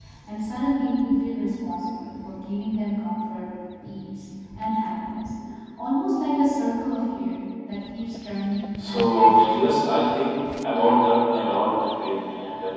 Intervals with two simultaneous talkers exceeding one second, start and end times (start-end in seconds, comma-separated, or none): 8.9-10.2